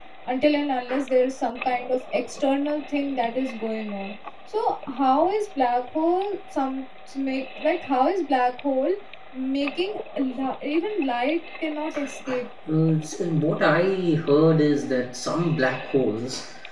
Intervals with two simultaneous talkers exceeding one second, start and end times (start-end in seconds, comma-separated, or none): none